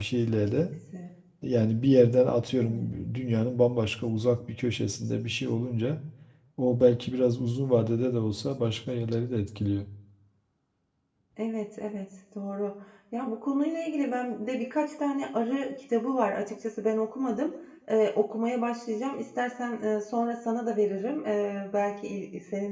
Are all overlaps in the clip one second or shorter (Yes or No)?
Yes